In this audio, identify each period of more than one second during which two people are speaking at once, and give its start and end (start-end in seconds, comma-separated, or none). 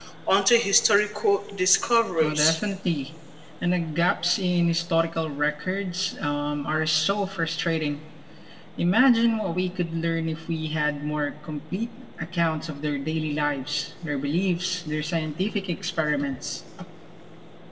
none